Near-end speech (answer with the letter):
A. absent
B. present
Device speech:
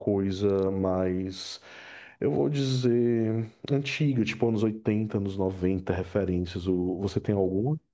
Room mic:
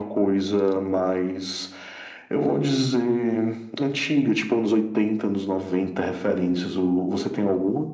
A